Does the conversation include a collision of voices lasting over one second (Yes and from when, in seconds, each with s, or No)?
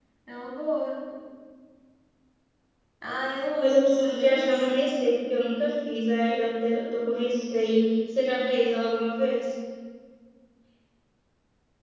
Yes, from 3.6 s